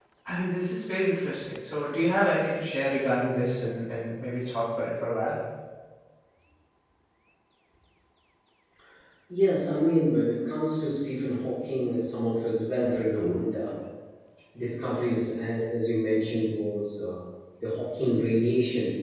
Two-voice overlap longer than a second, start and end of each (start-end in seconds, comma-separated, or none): none